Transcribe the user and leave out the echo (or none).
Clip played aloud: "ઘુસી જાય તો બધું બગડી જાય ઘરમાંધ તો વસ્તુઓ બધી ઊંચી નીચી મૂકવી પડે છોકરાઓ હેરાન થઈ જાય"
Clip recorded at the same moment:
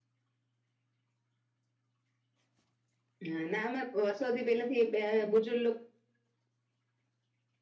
હા નામા વર્ષોથી પેલે થી બુજુર્ગ